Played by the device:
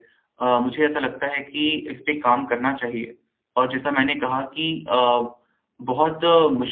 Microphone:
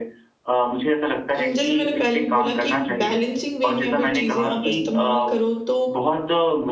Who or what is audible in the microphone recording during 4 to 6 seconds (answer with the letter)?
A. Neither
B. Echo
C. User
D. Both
D